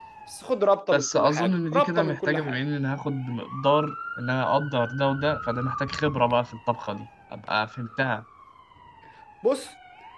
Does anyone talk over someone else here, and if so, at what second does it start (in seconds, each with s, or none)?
0.9 s